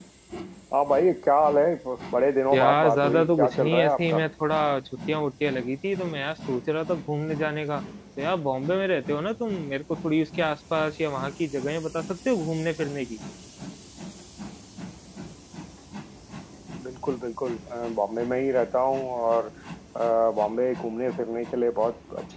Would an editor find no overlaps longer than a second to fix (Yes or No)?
No